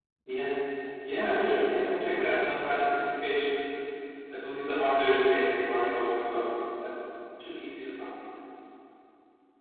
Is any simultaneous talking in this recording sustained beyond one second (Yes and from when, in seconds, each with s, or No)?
Yes, from 1.1 s